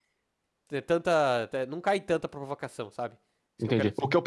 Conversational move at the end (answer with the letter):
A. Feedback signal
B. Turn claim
B